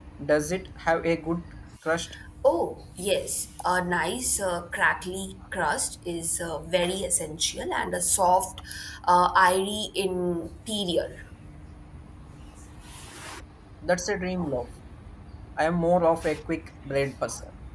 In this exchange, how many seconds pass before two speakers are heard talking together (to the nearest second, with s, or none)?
none